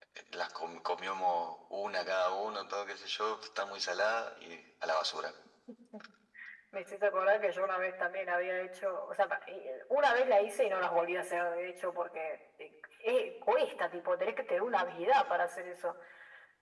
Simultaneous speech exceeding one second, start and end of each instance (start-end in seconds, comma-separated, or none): none